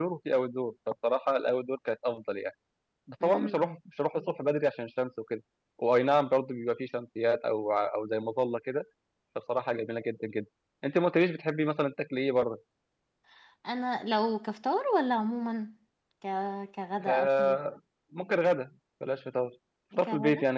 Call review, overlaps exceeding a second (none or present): none